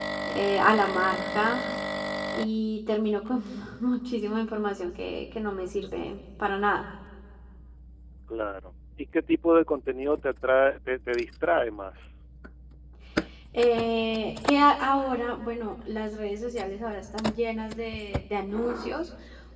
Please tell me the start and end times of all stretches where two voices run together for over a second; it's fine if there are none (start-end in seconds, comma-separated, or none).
none